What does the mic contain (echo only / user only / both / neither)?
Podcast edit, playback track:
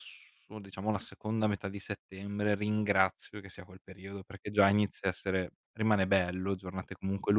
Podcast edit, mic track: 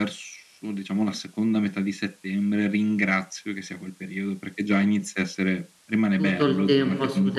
both